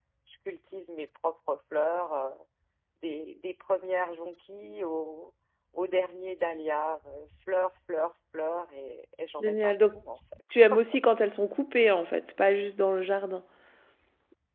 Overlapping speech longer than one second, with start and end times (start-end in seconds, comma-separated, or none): none